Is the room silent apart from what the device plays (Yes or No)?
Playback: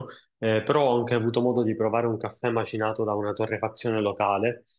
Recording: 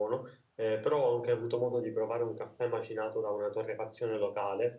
Yes